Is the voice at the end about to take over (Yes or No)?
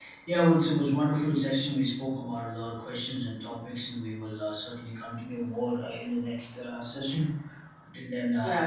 No